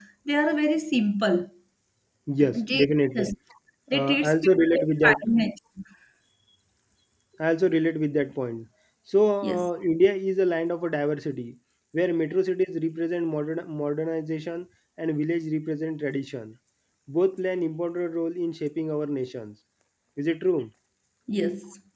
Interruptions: present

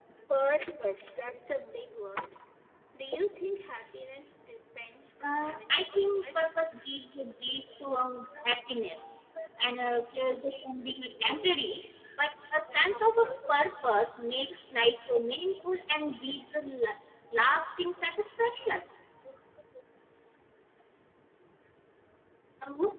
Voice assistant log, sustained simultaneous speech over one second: present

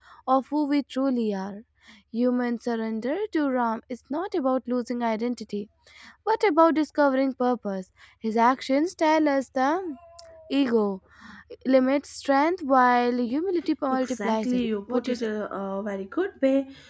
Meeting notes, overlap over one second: present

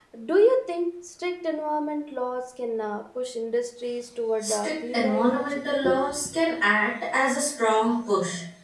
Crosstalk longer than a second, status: present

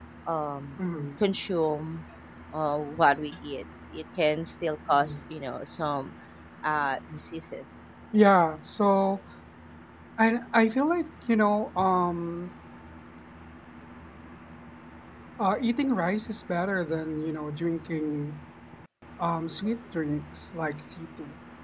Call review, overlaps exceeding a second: none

